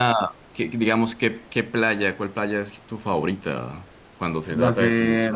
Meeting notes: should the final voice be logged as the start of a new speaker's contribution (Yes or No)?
Yes